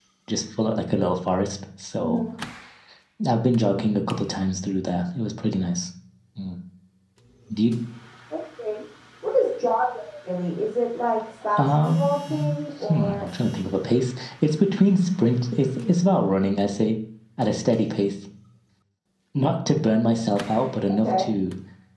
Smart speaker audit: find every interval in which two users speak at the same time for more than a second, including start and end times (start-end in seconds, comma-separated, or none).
11.6-13.3